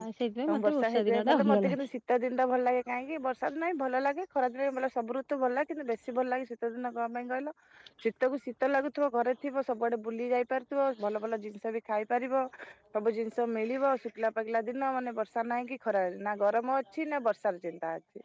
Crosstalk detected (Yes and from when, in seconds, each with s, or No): Yes, from 0.5 s